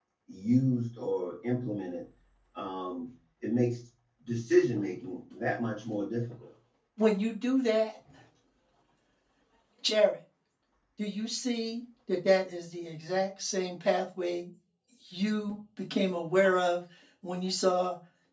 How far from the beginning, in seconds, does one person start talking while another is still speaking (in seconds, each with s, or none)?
none